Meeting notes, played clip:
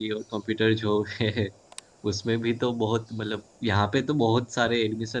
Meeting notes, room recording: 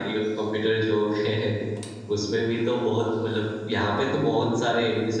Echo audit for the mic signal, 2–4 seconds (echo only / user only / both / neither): echo only